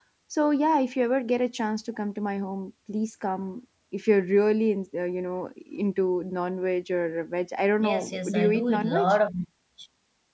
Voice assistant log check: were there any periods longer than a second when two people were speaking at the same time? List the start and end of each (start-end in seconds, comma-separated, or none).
7.8-9.1